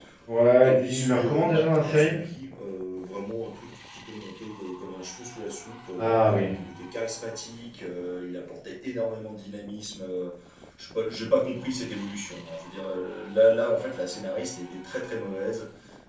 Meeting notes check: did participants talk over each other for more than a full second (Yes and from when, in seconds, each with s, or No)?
Yes, from 0.6 s